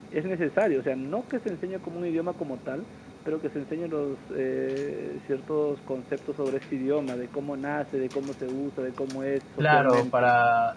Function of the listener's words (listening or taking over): taking over